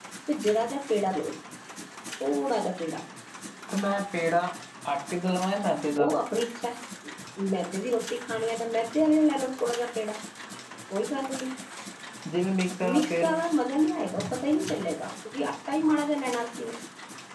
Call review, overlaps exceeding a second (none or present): none